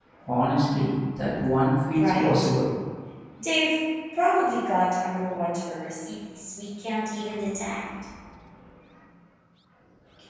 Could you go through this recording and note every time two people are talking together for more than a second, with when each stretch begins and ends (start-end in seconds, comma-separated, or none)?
none